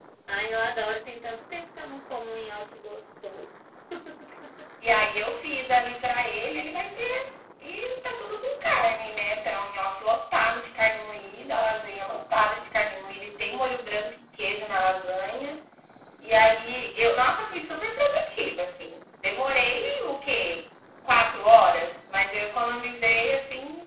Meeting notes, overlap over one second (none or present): none